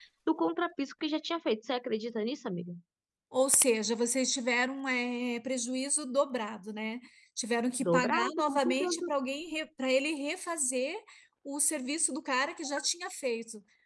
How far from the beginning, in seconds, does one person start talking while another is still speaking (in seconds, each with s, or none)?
7.8 s